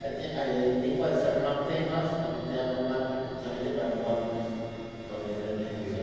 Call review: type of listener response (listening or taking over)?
listening